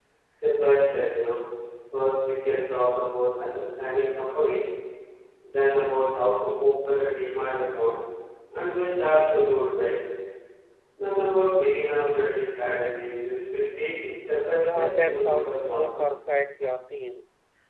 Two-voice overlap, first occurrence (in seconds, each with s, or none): 14.6 s